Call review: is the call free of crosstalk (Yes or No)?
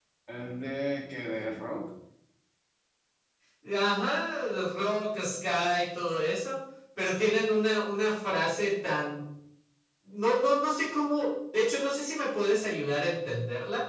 Yes